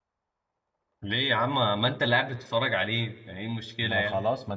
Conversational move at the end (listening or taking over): taking over